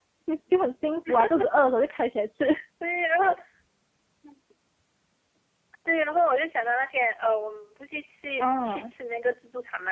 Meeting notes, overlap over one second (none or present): none